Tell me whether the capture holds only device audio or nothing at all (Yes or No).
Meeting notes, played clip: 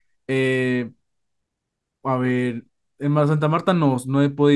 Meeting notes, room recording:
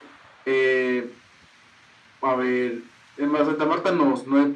Yes